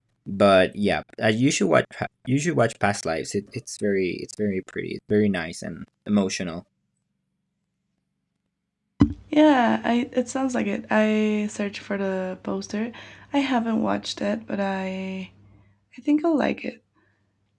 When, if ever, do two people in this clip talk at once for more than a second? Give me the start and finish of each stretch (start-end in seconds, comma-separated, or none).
none